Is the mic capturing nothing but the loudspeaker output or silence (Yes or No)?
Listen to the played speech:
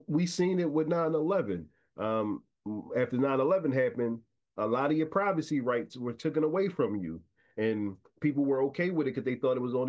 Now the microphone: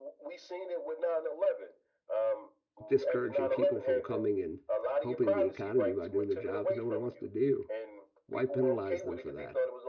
No